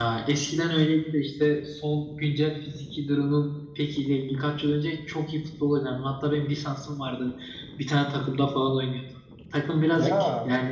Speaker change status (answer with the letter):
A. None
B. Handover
A